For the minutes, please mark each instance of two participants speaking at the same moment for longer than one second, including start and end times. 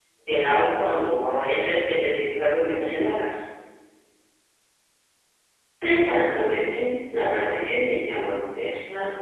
none

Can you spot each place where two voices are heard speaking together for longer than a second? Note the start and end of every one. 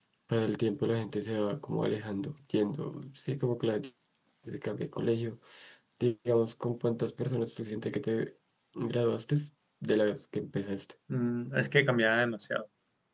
none

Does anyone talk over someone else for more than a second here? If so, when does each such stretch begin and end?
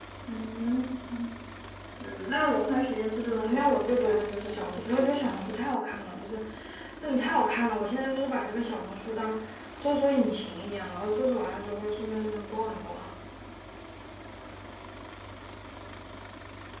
3.2-5.4

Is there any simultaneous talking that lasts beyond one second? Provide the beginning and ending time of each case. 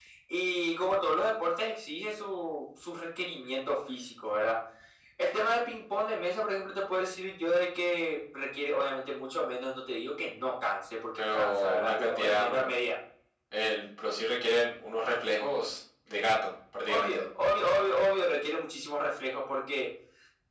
11.2-12.7

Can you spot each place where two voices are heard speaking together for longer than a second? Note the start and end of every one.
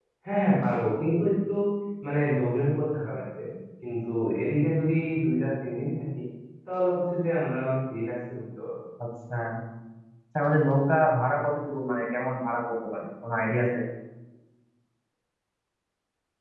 none

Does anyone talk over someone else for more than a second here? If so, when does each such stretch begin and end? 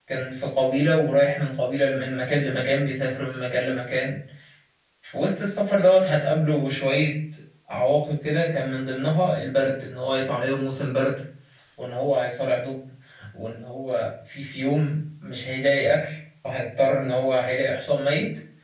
none

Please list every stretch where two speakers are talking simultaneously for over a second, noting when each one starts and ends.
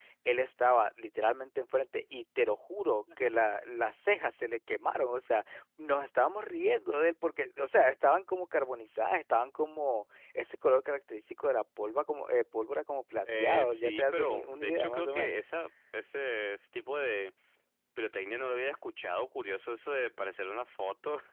13.2-15.4

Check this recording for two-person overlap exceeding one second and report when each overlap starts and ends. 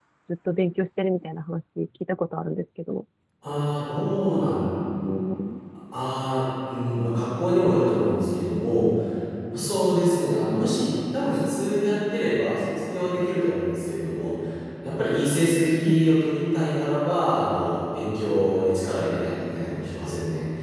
none

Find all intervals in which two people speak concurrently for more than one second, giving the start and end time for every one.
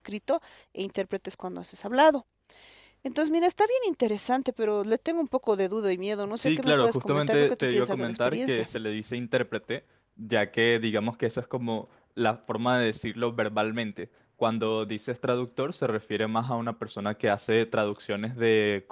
6.4-8.7

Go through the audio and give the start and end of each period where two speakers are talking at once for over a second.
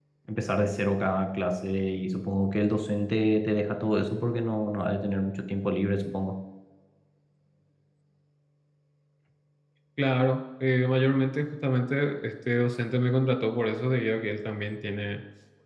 none

